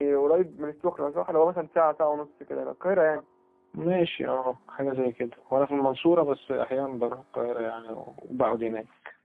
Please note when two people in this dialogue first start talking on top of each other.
none

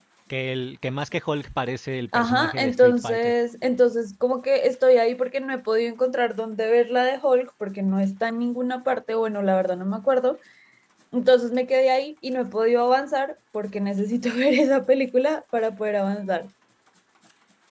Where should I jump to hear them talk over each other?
2.1 s

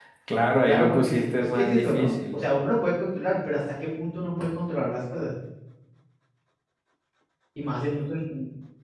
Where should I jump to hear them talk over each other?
0.6 s

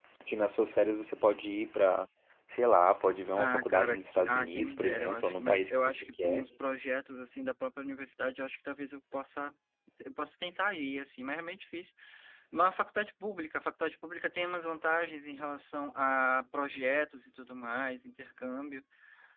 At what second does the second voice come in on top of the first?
3.4 s

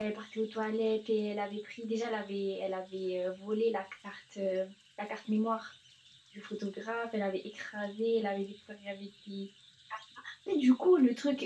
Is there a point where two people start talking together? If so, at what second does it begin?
none

